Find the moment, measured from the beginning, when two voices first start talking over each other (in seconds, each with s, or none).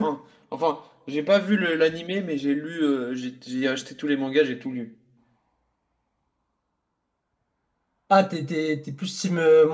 none